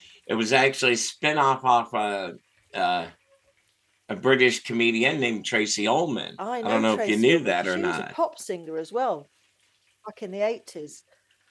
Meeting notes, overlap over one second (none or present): present